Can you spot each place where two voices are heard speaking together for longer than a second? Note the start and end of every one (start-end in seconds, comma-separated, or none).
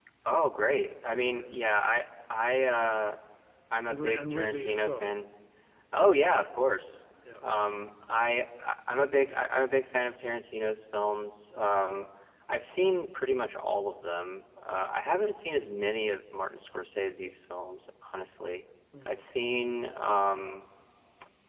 3.8-5.1